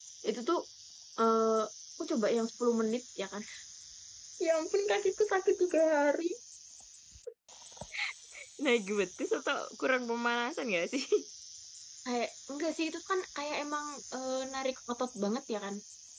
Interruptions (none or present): none